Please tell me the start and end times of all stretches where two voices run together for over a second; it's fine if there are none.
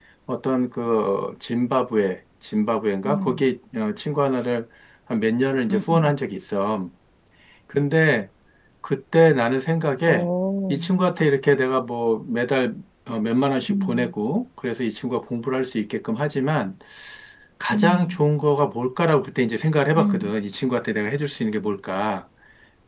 none

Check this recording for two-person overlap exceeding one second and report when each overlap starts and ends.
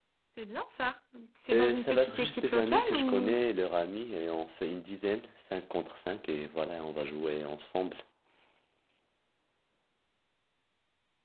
1.5-3.4

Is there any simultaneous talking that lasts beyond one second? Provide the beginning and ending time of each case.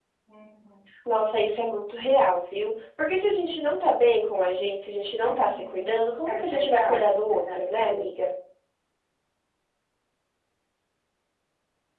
5.2-8.0

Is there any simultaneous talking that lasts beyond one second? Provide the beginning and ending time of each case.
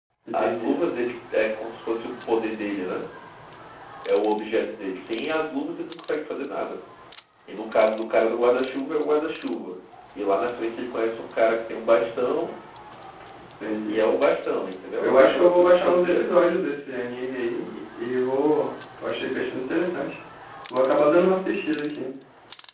15.0-16.2

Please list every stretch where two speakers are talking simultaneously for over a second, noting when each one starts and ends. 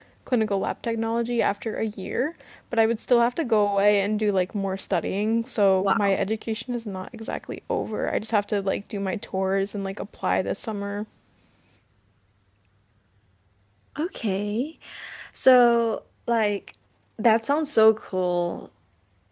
none

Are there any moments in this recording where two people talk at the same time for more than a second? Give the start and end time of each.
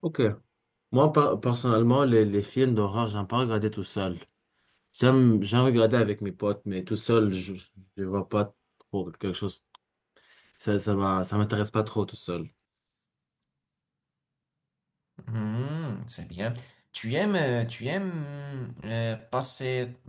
none

